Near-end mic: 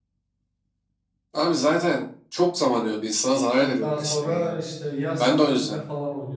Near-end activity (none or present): present